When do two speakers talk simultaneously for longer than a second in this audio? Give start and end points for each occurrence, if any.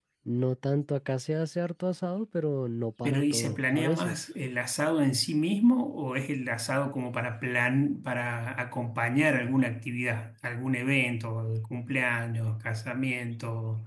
3.0-4.2

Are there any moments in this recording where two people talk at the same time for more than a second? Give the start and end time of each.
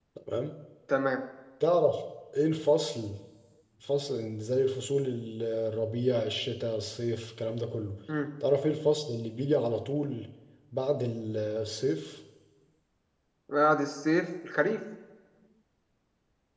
none

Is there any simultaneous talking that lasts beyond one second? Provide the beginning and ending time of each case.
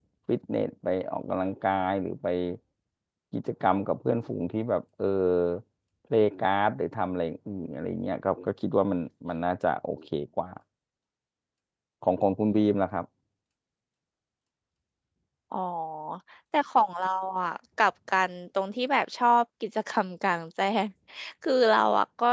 none

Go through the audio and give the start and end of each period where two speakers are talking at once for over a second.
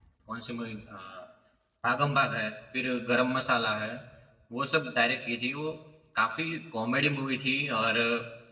none

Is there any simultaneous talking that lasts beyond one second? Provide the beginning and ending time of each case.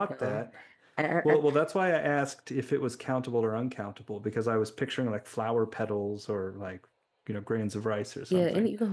none

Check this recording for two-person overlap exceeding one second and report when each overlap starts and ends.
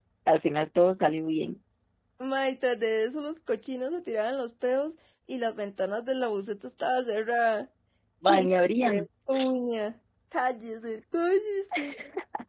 none

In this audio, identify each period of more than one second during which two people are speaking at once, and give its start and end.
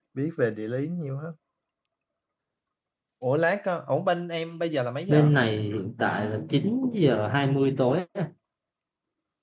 none

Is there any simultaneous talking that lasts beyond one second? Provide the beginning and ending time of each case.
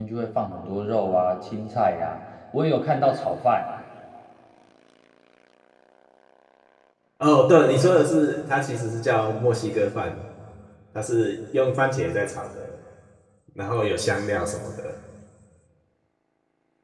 none

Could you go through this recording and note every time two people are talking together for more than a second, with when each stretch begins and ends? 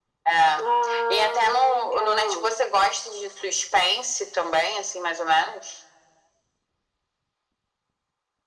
1.1-2.5

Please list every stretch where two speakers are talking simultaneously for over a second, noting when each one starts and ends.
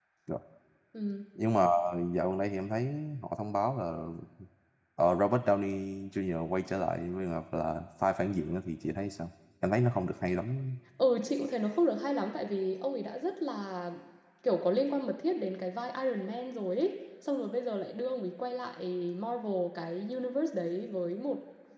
none

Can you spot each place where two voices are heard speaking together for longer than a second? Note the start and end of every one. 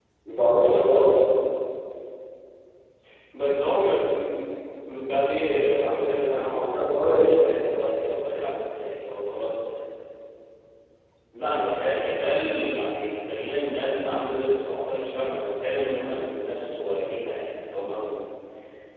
6.2-7.7

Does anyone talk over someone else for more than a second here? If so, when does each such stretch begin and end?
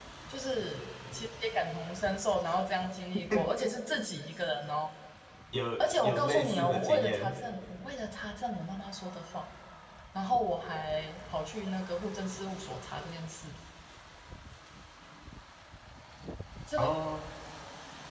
6.0-7.4

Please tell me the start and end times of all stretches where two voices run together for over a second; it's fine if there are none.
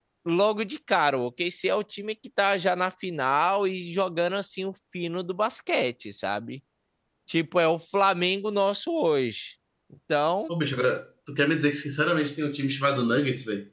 none

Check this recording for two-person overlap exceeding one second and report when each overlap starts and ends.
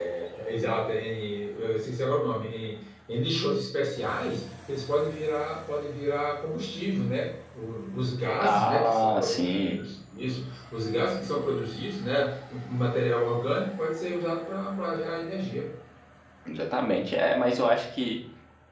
8.4-9.8

